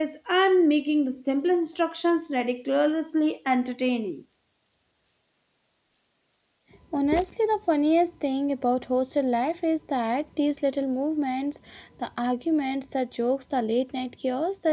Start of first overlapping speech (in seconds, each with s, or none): none